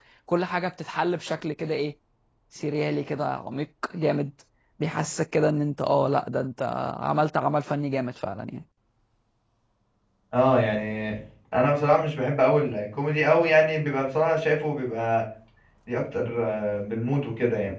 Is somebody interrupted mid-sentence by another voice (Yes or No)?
No